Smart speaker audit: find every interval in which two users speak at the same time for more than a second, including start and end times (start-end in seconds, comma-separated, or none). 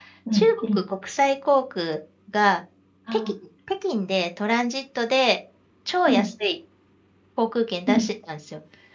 none